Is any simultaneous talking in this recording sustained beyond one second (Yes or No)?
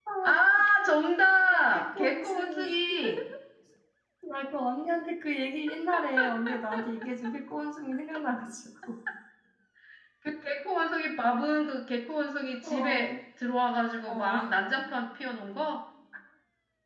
Yes